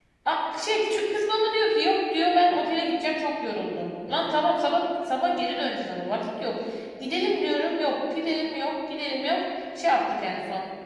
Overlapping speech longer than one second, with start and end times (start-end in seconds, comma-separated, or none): none